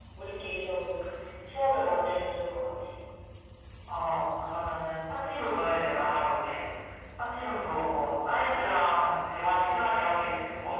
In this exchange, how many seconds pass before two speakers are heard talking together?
none

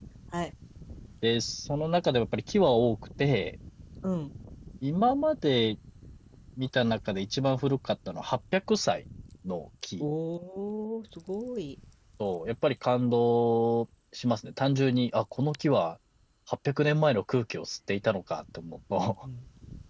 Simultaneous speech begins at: none

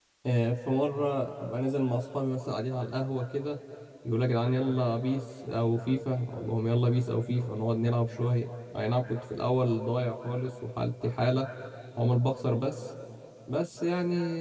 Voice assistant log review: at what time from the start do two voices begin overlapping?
none

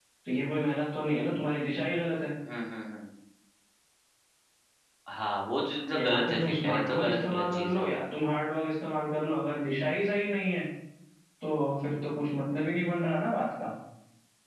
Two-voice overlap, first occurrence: 5.9 s

